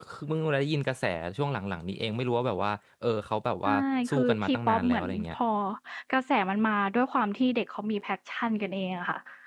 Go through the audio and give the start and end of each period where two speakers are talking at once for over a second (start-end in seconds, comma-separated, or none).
4.1-5.3